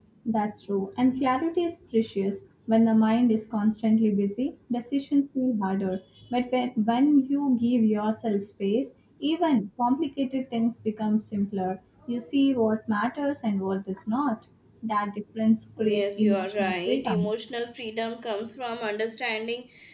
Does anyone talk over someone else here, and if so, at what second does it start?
15.8 s

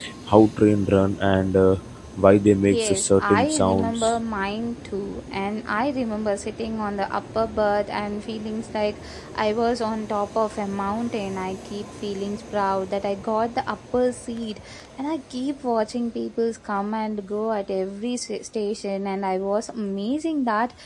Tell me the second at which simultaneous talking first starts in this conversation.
2.7 s

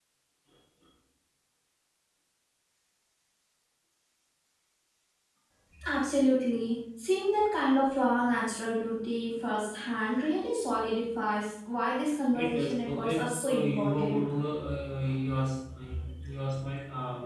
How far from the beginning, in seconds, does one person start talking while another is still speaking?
12.3 s

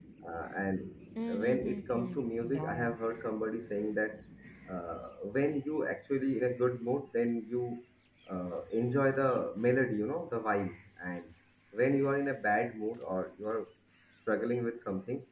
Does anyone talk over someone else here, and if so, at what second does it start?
1.4 s

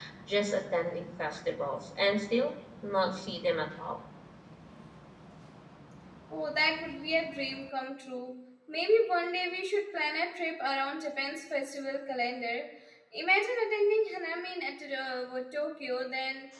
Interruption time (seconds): none

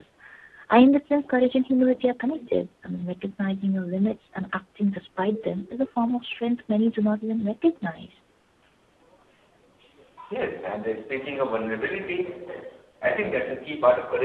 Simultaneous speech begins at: none

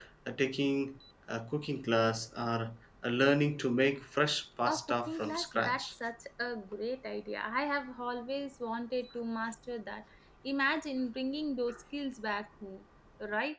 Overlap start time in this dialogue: 4.7 s

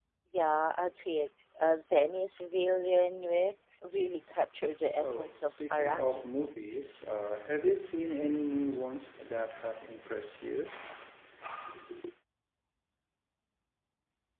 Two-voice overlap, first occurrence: 4.9 s

